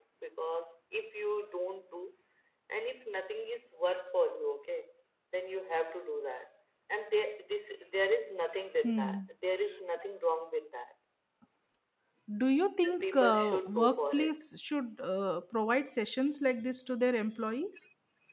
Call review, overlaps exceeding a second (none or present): present